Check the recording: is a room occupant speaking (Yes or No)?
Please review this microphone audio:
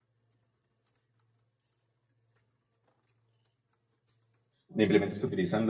Yes